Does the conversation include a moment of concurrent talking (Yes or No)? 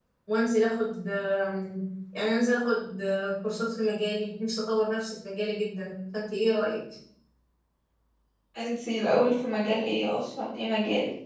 No